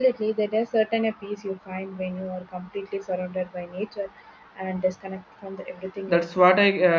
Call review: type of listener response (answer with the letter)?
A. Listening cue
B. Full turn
B